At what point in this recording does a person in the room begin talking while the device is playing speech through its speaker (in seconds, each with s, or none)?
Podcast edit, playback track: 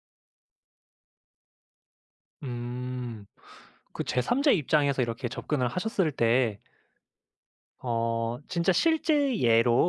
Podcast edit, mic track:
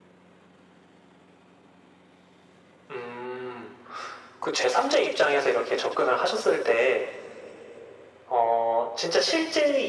none